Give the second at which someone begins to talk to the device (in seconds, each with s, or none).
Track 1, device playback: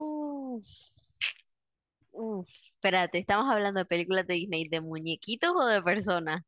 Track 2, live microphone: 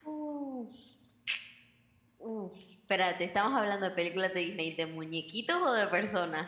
none